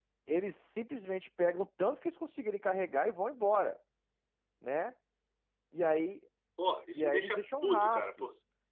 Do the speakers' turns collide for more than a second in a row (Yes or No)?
Yes